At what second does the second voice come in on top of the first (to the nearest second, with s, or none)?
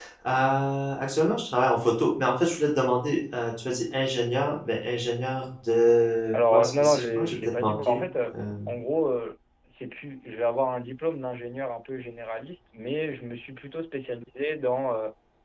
6 s